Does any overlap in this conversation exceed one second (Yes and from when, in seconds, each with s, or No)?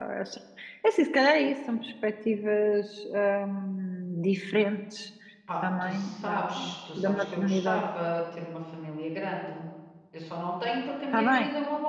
Yes, from 5.6 s